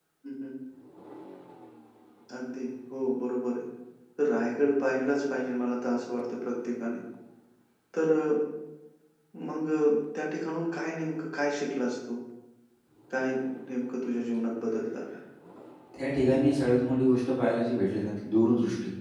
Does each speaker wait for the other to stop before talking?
Yes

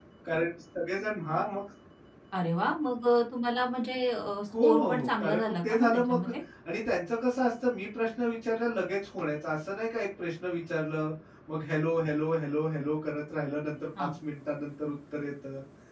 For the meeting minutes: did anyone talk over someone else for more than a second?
Yes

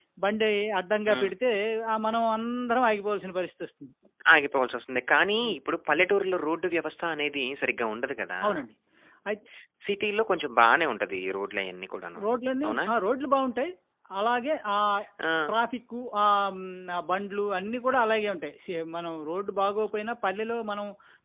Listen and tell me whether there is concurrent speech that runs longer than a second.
No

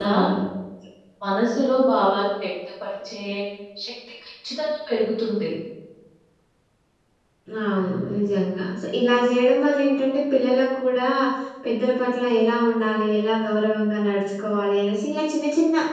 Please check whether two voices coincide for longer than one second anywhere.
No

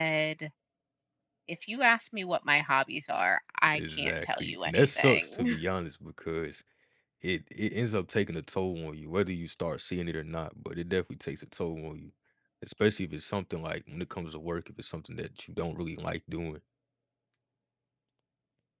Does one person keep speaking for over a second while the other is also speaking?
Yes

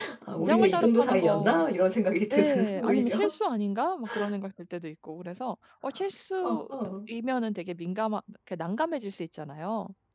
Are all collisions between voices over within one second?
No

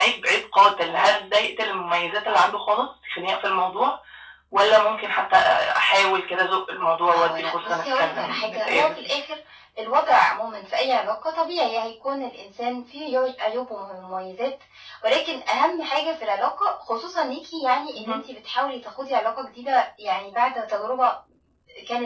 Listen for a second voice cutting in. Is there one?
Yes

